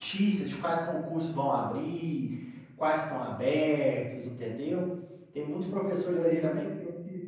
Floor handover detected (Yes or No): Yes